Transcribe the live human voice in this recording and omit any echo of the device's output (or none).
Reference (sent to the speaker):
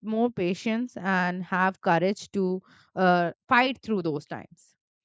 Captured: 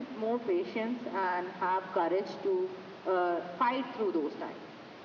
none